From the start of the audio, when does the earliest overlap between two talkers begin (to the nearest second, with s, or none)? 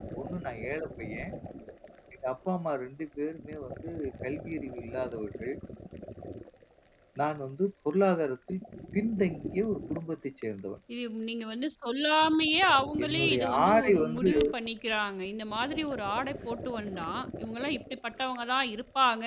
13 s